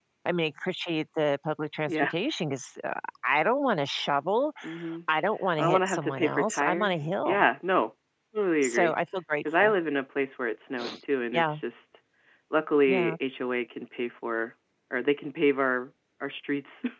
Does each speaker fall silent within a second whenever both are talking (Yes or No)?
No